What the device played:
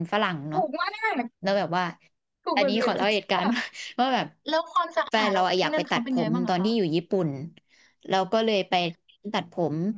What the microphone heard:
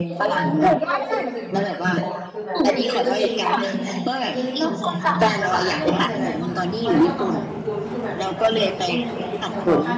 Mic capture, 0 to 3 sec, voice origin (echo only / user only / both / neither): both